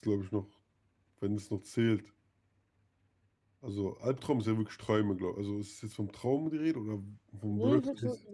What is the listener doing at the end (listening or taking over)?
taking over